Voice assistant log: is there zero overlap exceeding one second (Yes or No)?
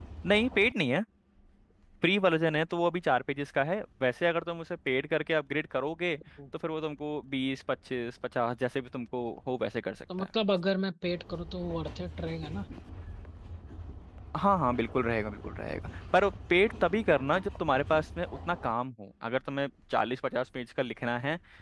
Yes